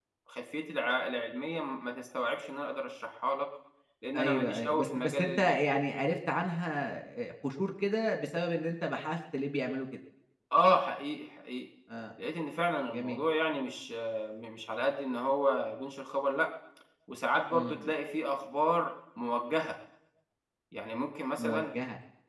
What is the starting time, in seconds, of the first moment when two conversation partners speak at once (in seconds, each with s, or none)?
4.1 s